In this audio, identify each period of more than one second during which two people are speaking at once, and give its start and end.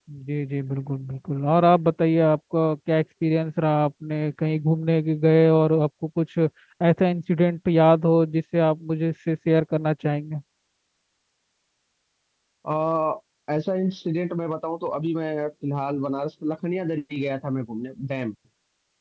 none

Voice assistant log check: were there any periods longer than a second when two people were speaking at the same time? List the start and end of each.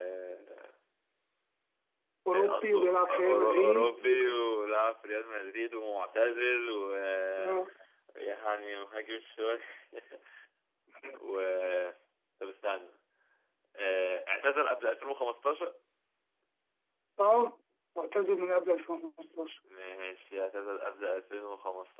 2.3-4.2

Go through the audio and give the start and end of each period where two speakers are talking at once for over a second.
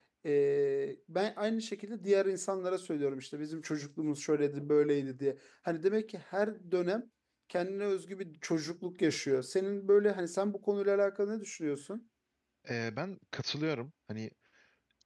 none

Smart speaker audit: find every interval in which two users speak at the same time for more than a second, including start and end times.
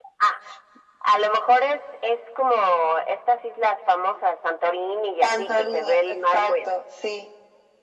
5.2-6.7

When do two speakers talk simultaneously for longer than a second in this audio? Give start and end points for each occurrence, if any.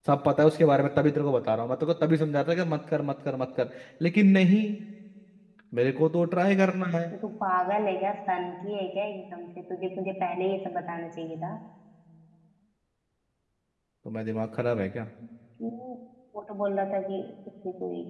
none

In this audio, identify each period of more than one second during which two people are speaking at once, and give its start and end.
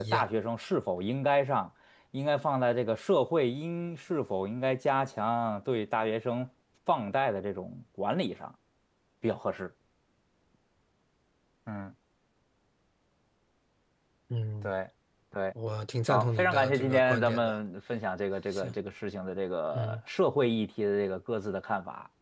16.1-17.6

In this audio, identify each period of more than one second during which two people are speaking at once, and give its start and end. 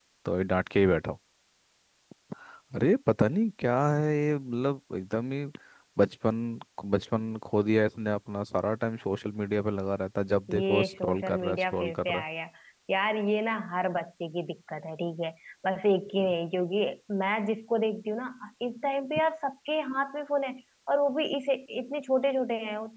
10.5-12.2

